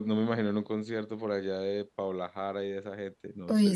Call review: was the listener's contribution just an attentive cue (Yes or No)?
No